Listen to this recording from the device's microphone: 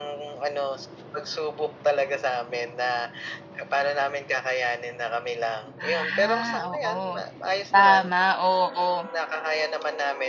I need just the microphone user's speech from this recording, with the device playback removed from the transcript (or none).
Ah, oo. Tama, oo.